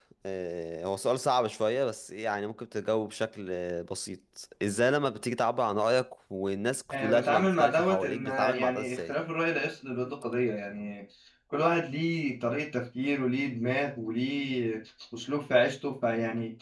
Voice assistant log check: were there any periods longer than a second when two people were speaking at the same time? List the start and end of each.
6.9-9.2

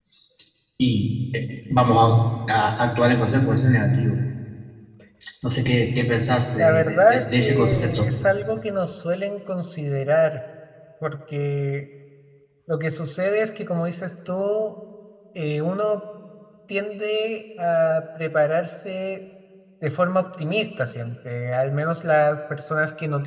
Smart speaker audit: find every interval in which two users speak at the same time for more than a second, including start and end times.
6.6-8.1

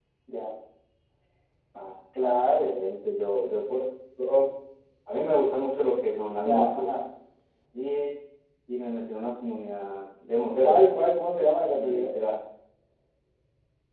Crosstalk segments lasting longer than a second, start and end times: none

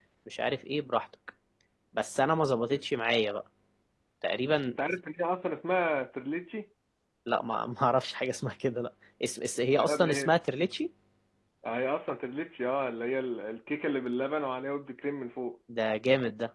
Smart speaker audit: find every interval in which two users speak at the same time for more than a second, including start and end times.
none

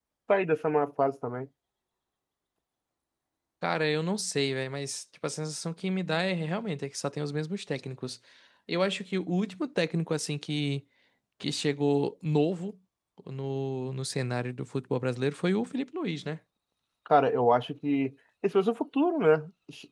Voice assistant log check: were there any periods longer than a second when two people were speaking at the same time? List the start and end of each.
none

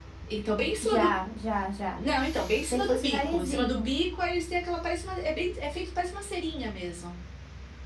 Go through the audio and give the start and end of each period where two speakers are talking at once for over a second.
2.6-3.9

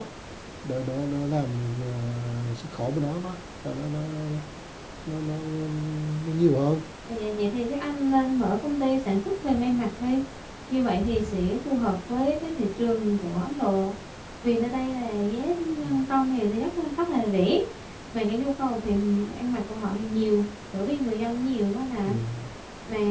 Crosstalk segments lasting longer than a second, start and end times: none

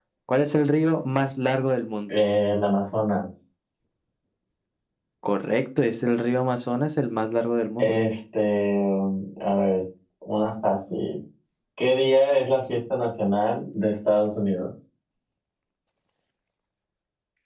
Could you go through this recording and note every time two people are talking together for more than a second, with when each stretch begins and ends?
none

